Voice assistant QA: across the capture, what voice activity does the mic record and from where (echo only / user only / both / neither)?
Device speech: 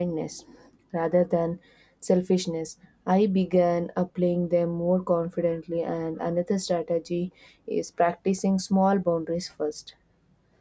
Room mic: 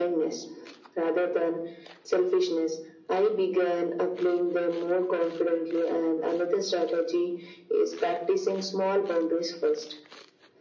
echo only